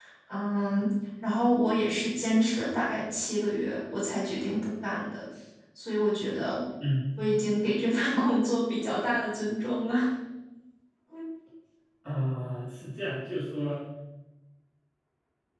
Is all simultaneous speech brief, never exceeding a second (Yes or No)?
Yes